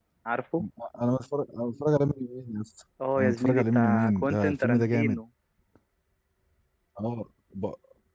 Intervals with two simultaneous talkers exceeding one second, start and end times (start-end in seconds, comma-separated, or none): 3.2-5.2